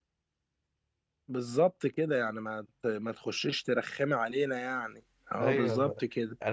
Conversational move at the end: taking over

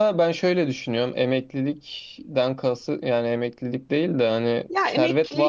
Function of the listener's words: taking over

